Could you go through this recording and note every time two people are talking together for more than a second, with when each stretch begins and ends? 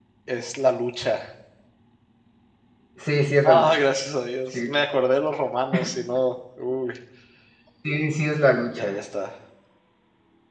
none

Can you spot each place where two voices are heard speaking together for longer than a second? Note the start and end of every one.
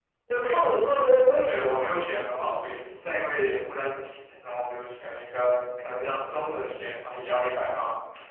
none

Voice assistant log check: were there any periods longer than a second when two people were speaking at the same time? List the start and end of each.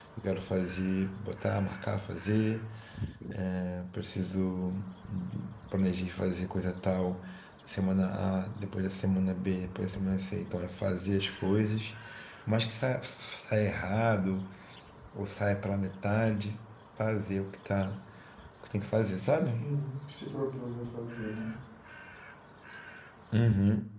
none

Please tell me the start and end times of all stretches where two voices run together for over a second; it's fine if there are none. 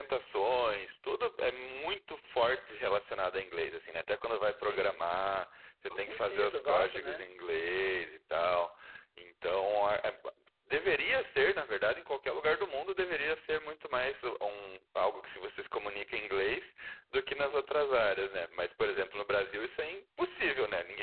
5.9-7.2

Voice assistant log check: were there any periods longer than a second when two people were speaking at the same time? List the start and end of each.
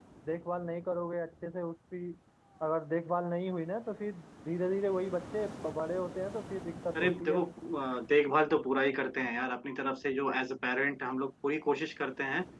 none

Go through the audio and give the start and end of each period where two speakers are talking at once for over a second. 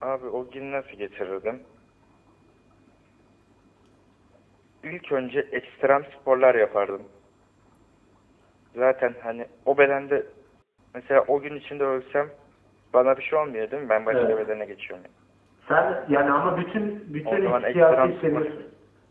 17.2-18.6

